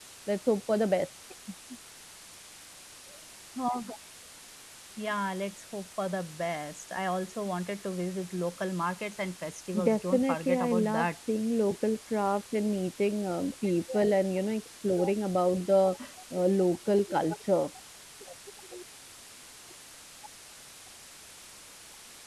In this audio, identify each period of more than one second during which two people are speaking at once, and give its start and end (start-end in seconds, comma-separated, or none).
9.8-11.1